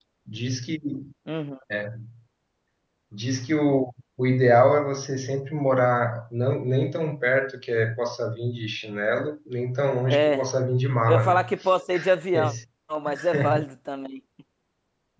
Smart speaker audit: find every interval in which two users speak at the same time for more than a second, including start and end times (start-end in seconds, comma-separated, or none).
none